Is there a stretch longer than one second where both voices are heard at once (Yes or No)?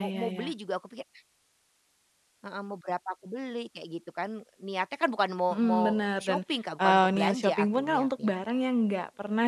Yes